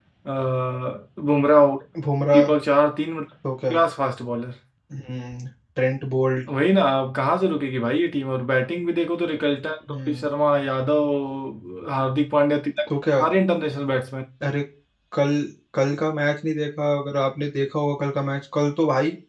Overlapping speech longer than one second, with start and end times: none

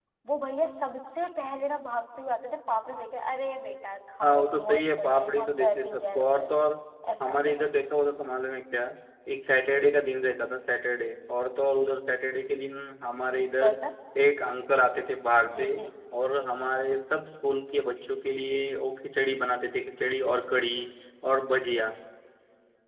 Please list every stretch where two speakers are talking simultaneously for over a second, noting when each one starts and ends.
4.2-6.5

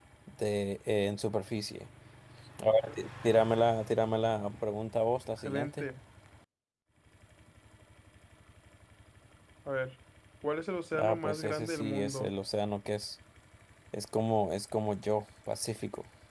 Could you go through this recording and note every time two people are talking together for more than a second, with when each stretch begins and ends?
11.0-12.3

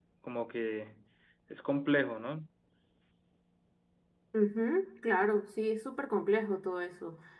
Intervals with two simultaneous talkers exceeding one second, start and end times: none

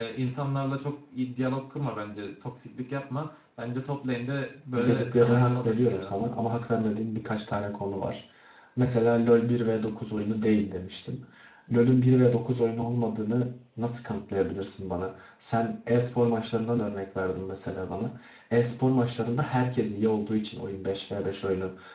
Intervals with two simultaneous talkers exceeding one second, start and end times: 4.7-6.2

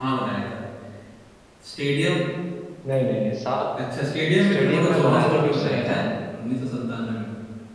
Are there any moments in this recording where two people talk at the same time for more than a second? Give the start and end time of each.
4.4-6.0

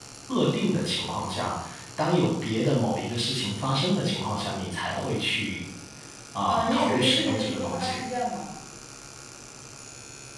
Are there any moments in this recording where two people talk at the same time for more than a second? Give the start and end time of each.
6.5-8.0

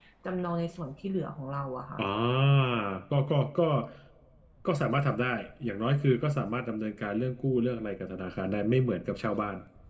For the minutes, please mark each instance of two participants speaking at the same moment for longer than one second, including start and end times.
none

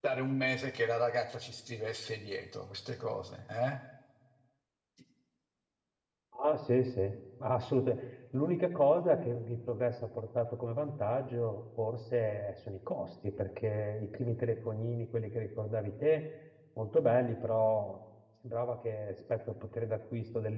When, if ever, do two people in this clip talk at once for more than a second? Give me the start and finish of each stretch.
none

